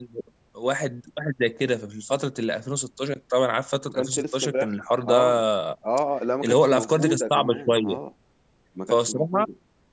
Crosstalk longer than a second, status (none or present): present